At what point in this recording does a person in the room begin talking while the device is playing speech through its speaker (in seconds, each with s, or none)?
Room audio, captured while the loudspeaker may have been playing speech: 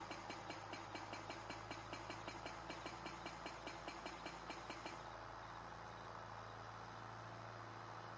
none